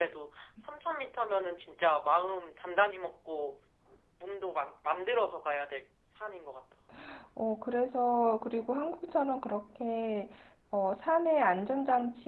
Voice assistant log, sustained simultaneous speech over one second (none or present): none